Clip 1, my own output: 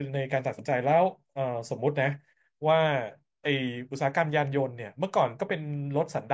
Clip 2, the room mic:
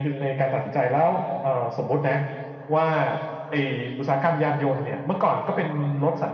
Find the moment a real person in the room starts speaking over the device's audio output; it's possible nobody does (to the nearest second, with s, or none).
none